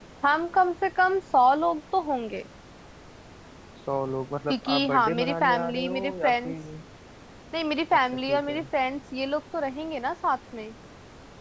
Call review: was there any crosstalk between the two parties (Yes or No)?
Yes